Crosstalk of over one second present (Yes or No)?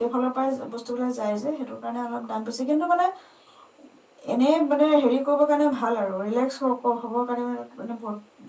No